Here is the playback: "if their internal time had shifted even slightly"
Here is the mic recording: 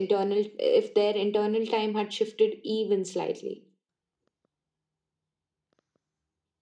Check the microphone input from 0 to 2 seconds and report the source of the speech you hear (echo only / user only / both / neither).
echo only